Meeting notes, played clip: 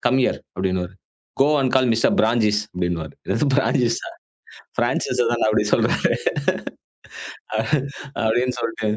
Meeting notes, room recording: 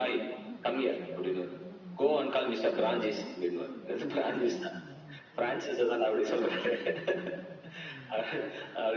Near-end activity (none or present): present